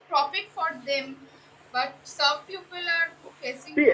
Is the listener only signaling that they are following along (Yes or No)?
No